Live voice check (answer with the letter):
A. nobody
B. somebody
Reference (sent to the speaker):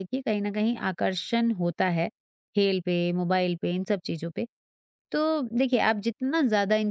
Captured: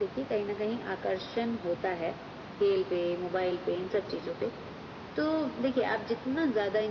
A